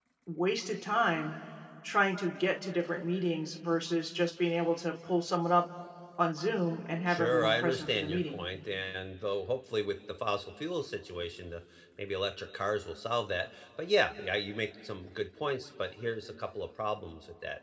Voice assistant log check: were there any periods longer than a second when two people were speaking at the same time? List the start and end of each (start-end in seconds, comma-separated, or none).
7.1-8.4